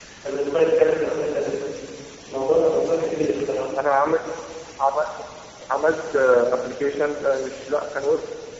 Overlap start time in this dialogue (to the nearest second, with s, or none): none